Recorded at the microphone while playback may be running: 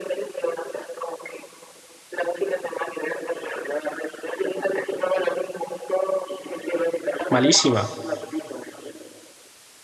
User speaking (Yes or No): Yes